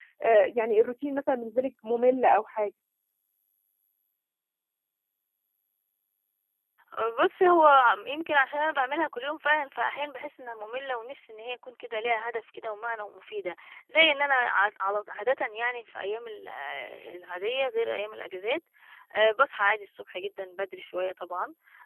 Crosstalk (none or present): none